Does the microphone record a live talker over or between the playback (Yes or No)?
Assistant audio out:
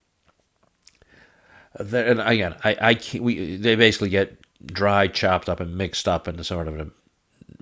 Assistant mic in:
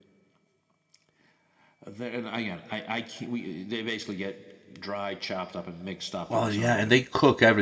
Yes